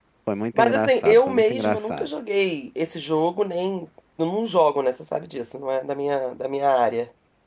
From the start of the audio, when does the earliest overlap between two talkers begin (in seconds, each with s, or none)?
0.6 s